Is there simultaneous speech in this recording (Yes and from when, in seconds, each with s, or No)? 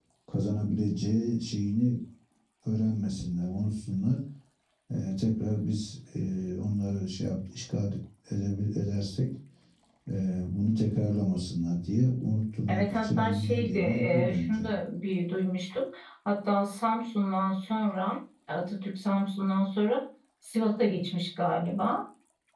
Yes, from 12.7 s